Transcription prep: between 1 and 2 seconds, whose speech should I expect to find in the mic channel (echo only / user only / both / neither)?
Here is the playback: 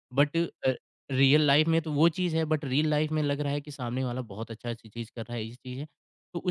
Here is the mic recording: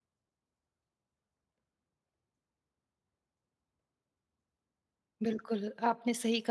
neither